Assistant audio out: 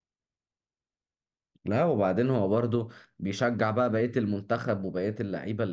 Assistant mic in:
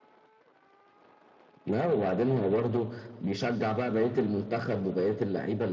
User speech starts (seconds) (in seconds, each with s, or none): none